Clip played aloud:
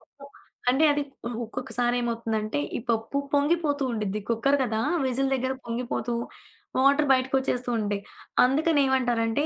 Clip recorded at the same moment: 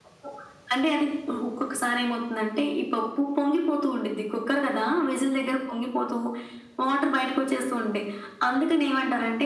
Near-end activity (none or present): none